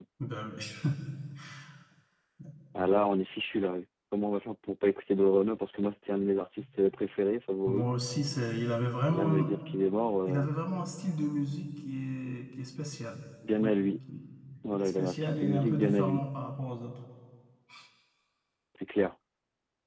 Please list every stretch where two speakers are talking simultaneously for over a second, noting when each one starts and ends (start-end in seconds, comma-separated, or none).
14.7-16.2